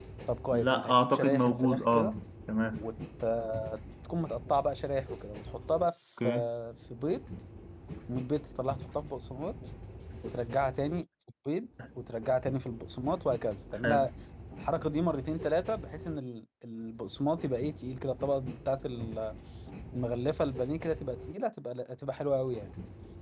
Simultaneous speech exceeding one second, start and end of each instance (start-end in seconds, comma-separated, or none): 0.5-2.1